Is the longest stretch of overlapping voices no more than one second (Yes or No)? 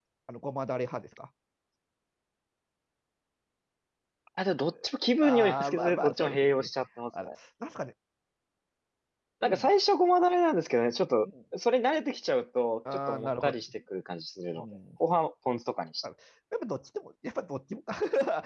No